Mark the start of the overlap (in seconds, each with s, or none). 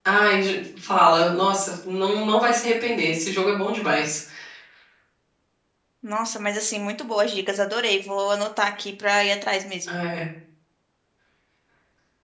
none